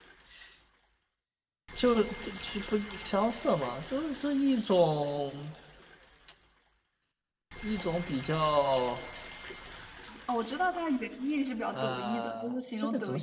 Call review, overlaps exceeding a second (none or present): present